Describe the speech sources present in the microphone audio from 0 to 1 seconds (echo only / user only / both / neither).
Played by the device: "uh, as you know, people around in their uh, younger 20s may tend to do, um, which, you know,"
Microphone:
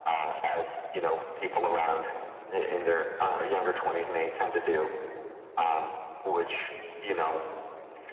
echo only